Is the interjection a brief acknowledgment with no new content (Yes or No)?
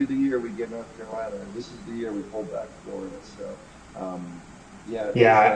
No